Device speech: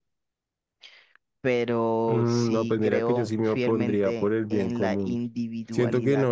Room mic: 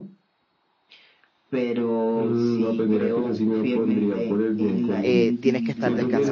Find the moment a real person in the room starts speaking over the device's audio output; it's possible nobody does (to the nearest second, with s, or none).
5 s